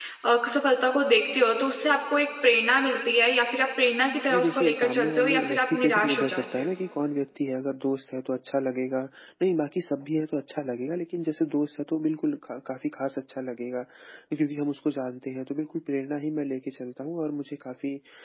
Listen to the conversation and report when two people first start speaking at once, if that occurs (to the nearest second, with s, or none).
4 s